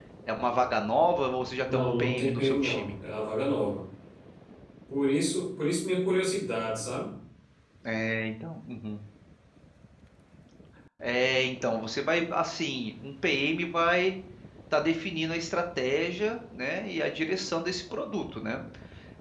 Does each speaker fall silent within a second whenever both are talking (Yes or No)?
No